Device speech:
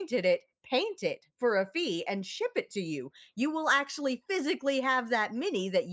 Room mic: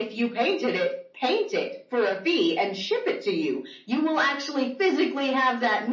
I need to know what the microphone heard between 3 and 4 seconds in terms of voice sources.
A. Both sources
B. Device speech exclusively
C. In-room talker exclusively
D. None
B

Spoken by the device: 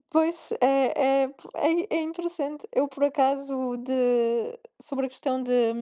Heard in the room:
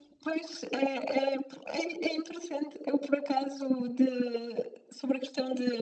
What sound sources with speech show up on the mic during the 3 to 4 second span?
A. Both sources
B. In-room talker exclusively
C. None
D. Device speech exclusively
D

